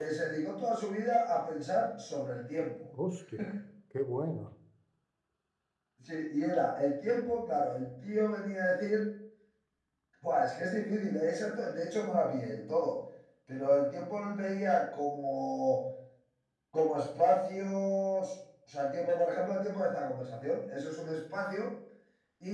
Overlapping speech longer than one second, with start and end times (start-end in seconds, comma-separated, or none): none